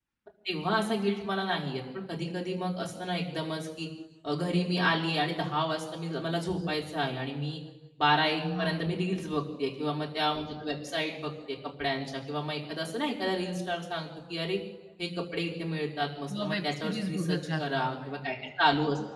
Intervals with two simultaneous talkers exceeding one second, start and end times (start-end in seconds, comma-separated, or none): 16.3-18.2